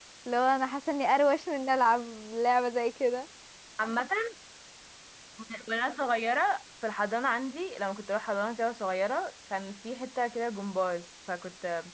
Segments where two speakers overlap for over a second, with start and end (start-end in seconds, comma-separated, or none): none